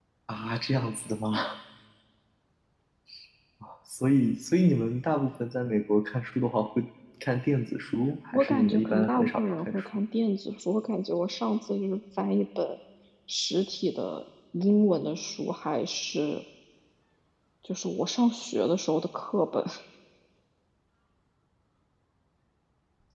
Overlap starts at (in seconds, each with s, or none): 8.3 s